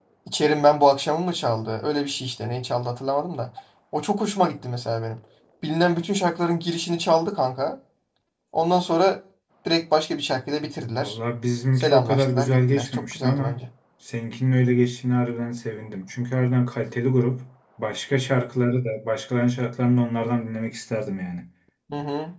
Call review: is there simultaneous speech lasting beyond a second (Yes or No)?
Yes